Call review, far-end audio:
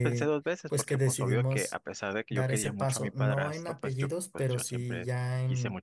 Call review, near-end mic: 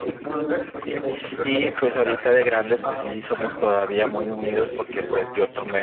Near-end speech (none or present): present